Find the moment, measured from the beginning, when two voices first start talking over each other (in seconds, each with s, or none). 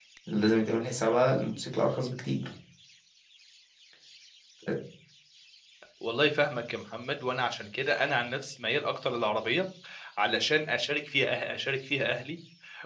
none